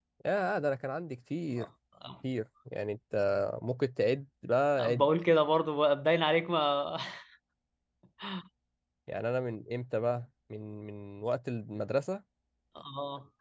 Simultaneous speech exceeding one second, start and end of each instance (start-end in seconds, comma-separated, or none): none